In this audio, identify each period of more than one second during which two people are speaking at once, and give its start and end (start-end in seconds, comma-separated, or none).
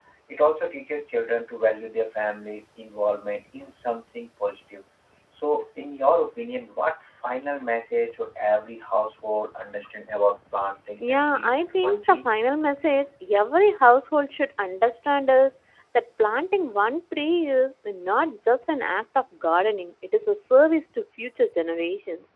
11.0-12.2